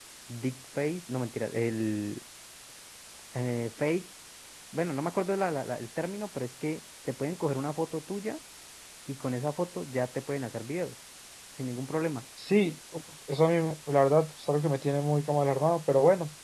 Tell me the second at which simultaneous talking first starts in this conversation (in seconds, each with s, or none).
none